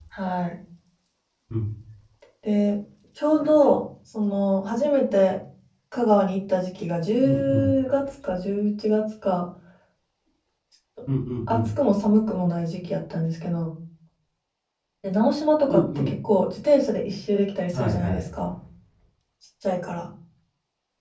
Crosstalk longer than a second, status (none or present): none